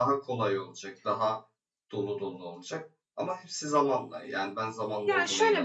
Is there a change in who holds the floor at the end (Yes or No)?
Yes